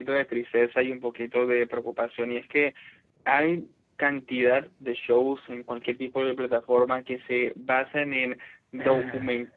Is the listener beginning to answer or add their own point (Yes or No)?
No